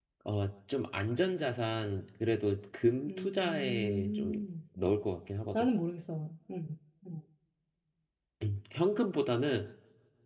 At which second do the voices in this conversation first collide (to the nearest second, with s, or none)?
3 s